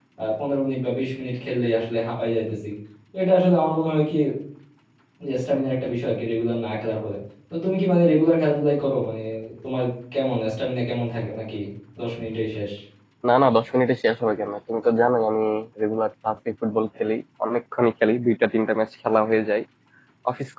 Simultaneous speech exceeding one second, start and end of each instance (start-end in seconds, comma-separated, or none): none